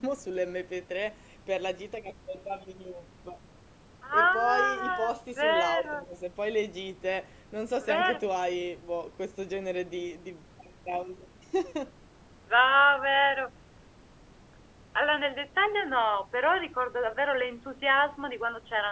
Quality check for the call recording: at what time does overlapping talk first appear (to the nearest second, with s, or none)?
4 s